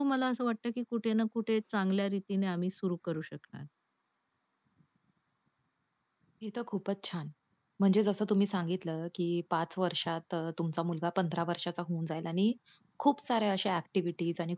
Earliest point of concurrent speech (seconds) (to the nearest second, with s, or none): none